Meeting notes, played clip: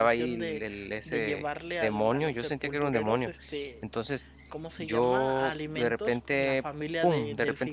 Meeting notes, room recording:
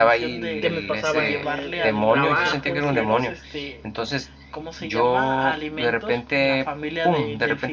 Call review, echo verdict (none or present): present